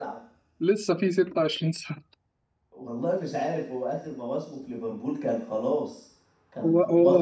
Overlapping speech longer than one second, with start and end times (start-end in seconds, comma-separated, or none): none